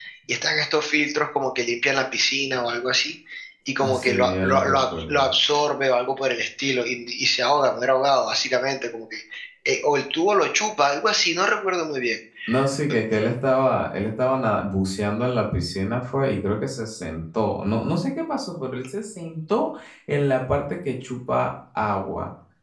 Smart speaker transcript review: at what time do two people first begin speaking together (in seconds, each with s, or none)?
3.8 s